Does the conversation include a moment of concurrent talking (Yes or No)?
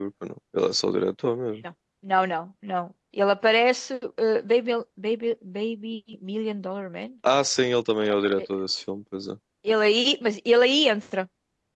No